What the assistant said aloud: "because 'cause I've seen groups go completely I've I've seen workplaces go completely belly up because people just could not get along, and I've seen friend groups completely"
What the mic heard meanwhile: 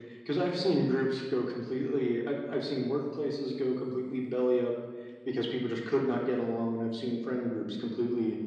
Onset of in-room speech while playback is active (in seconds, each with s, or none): none